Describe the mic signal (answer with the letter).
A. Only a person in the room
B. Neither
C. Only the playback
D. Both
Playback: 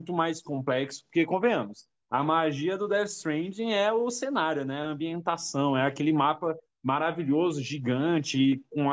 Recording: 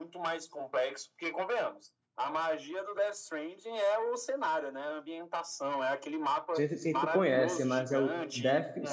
D